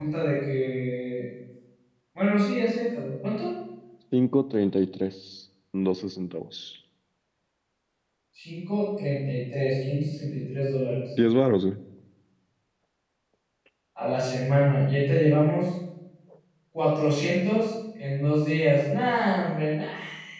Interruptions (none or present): none